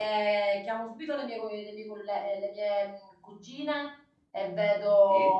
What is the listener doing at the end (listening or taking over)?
listening